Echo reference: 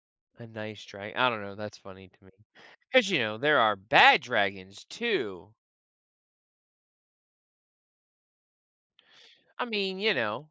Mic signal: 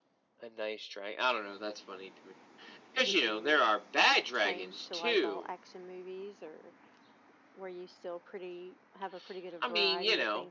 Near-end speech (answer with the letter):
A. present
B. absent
A